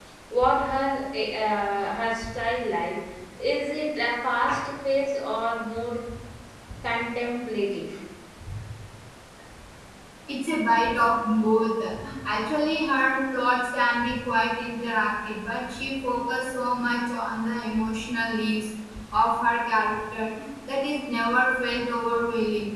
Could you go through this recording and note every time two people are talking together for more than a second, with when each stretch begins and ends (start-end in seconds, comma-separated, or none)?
none